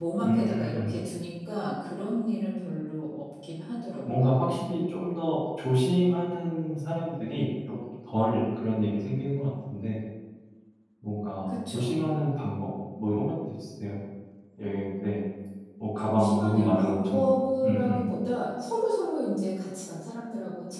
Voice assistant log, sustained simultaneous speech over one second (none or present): present